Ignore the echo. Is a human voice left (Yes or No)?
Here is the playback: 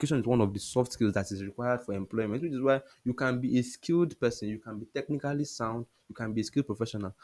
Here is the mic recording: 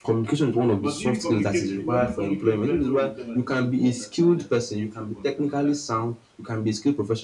Yes